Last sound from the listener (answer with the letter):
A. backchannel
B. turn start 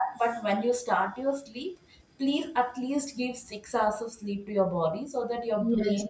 B